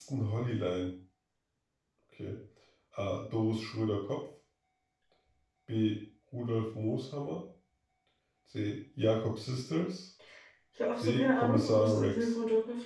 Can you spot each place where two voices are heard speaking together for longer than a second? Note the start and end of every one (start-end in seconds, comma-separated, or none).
11.0-12.3